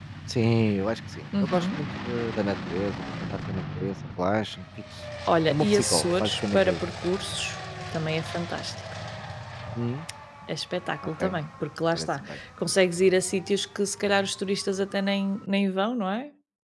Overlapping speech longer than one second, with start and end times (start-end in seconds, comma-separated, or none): 5.5-6.8